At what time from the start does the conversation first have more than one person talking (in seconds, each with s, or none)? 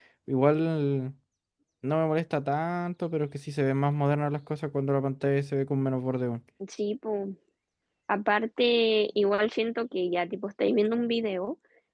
none